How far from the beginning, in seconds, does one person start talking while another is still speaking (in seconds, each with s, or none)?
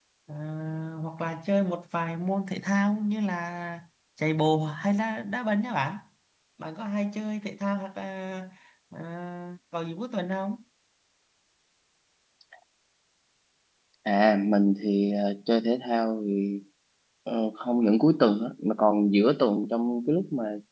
none